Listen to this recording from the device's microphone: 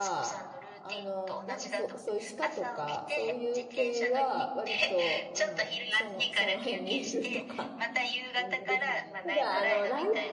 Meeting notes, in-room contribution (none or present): present